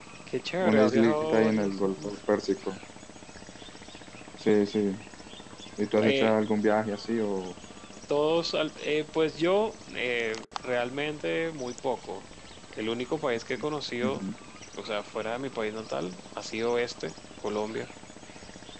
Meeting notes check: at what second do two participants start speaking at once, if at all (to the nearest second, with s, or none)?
1 s